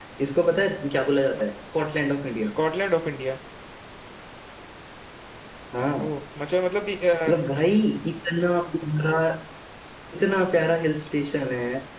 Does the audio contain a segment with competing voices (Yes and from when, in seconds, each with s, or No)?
No